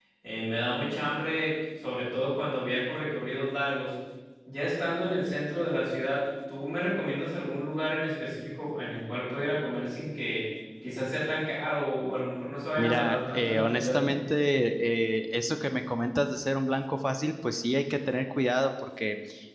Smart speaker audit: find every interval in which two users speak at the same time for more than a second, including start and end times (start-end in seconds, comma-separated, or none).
12.8-14.1